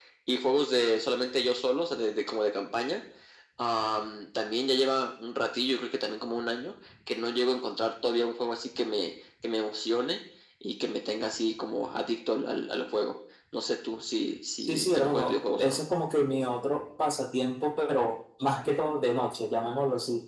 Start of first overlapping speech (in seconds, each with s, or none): 14.6 s